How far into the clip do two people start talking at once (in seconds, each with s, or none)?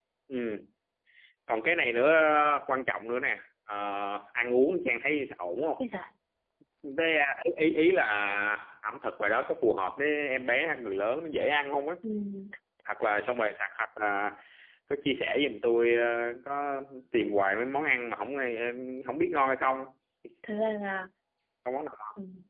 none